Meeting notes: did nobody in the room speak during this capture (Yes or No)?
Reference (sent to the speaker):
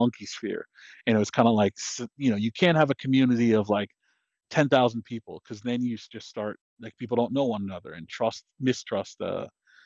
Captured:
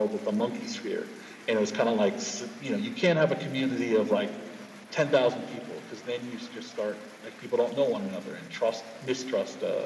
Yes